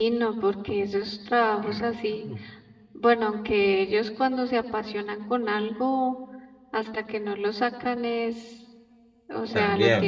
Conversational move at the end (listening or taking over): listening